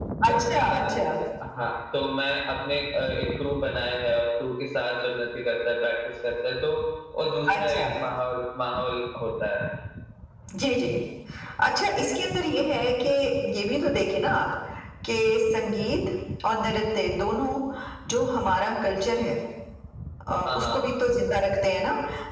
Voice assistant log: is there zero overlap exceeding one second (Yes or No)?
Yes